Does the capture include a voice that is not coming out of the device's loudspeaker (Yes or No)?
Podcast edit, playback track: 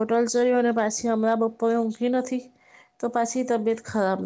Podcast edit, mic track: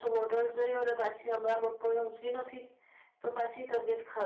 No